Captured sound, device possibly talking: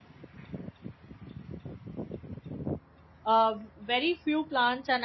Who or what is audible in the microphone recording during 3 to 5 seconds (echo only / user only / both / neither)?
user only